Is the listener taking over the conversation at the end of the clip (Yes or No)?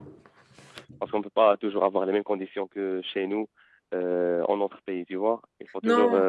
No